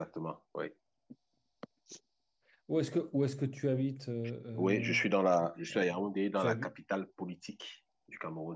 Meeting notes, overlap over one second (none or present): none